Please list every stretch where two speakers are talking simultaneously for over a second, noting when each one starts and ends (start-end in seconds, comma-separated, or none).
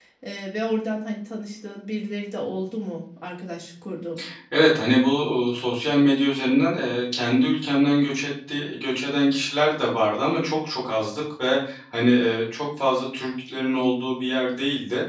none